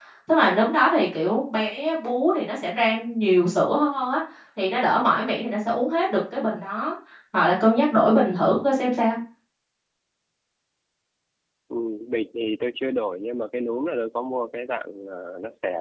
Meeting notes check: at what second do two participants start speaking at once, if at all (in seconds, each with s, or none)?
none